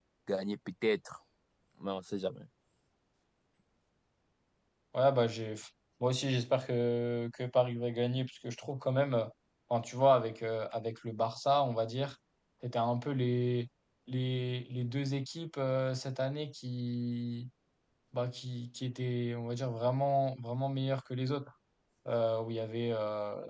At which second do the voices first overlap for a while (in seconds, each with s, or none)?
none